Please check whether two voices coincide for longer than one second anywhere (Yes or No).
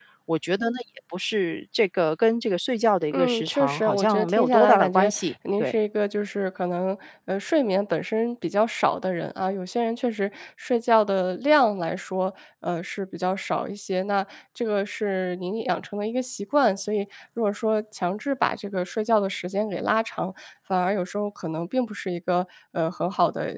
Yes